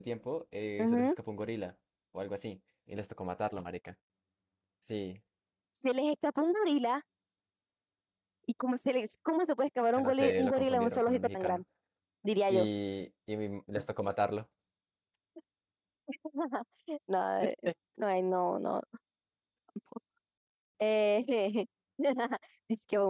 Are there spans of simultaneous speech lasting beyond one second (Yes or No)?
Yes